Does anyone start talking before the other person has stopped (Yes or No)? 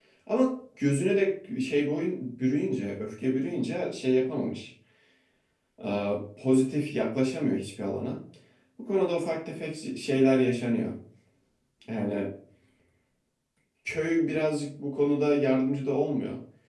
No